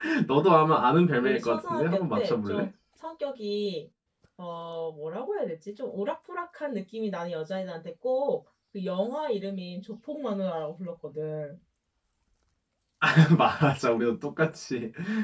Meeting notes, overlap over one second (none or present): present